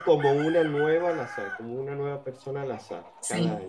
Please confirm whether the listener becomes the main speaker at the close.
Yes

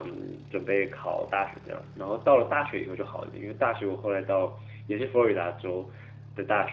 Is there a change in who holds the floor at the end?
No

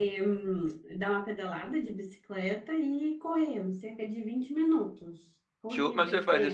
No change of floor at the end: No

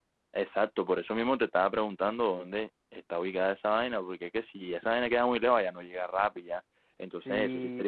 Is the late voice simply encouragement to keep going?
No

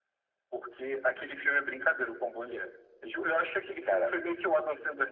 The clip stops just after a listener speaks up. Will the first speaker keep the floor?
Yes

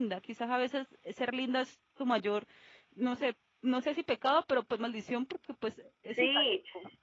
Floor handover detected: Yes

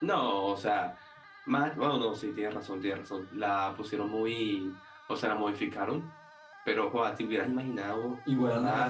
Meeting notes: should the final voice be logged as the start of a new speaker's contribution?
Yes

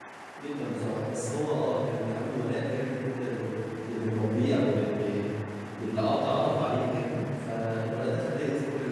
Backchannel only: Yes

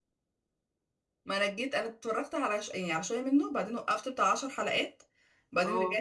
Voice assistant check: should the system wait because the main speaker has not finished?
Yes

